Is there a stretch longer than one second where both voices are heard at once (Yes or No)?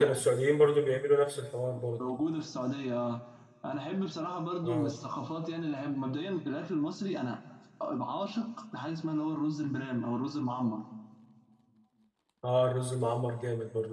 No